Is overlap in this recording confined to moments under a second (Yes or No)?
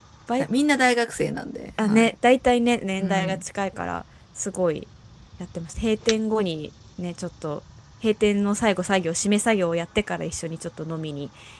Yes